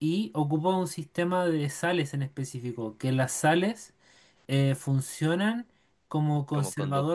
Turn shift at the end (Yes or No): No